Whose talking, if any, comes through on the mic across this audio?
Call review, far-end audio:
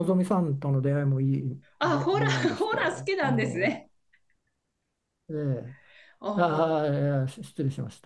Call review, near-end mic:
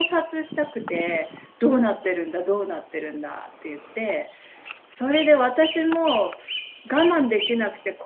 user only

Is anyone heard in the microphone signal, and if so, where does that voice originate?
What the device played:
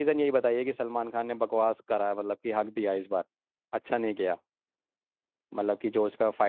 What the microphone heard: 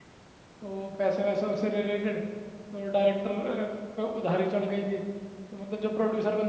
user only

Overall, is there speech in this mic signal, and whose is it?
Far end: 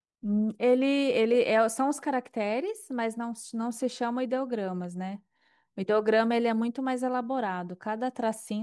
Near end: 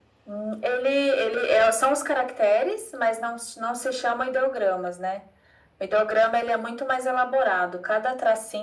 echo only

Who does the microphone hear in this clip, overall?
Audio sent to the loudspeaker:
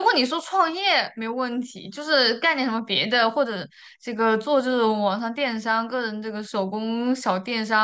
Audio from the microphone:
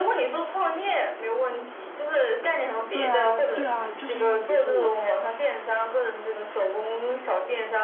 both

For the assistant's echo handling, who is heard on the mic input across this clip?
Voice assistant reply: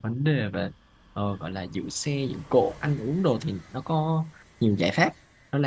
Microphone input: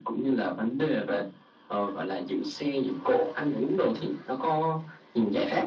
echo only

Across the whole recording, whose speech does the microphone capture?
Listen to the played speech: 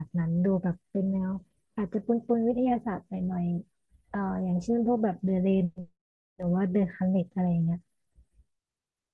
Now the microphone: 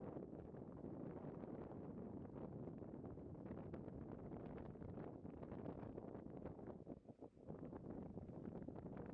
neither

